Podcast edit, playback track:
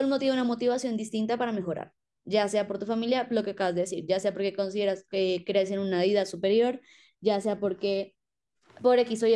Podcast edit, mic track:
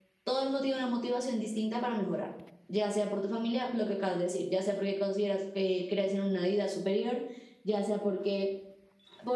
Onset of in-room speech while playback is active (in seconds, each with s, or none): none